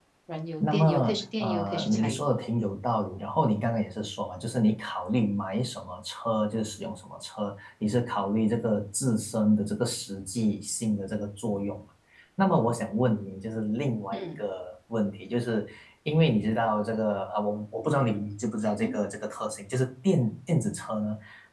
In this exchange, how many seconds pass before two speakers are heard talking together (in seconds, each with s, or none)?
0.6 s